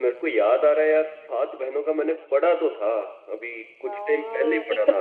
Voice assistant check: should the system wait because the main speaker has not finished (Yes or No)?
No